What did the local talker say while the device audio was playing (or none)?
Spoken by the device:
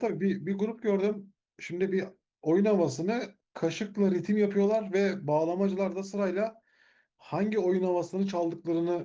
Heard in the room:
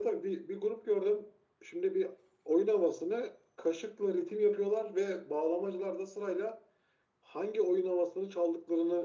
none